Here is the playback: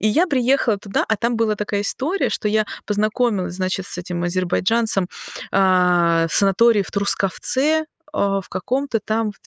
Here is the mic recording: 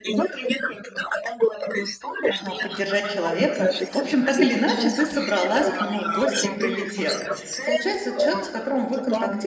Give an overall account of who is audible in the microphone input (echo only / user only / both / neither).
both